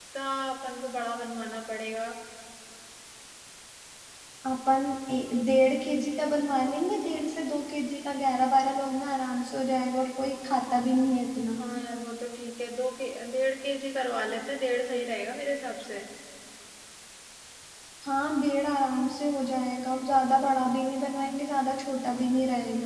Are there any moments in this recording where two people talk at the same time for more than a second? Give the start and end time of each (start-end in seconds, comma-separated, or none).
none